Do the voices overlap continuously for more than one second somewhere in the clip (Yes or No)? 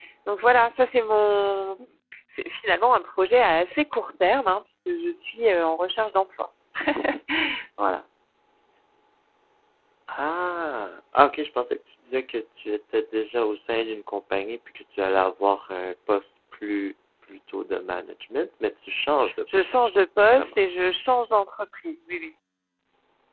No